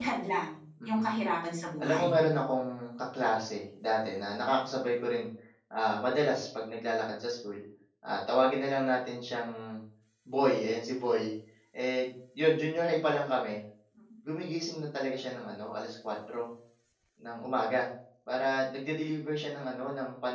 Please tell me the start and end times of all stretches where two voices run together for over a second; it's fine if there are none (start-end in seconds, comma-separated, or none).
none